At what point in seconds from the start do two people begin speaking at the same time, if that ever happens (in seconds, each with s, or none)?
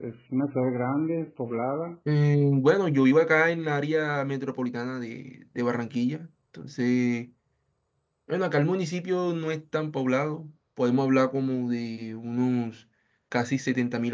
none